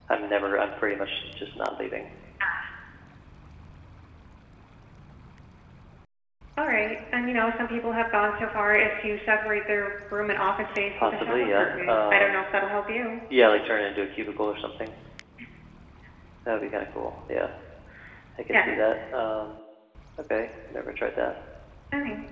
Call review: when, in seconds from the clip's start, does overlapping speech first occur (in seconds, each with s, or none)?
11.0 s